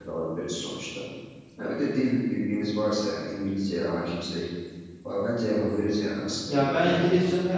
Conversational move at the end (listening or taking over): taking over